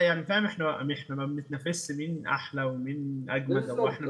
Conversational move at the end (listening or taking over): listening